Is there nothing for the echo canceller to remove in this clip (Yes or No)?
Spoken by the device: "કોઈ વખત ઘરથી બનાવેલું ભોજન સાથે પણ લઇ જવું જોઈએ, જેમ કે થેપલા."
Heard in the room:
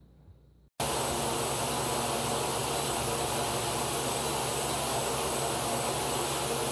Yes